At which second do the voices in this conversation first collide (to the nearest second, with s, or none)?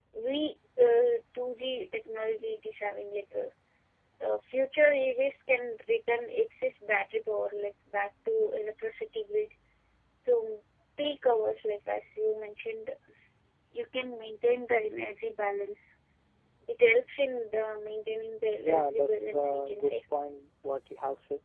19 s